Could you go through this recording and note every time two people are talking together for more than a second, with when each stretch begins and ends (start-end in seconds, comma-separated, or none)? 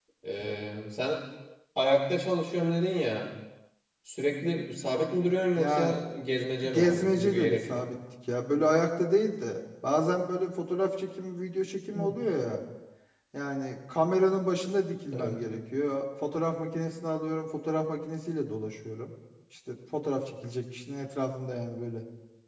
6.7-7.9